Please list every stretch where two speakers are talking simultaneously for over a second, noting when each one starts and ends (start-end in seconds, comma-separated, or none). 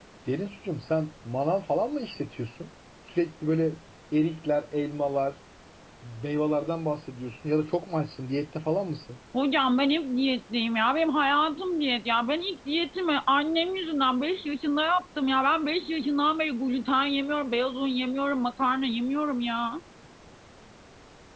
none